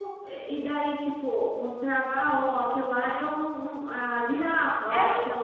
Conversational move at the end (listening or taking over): taking over